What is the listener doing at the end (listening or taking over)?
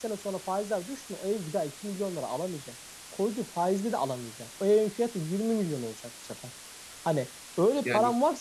listening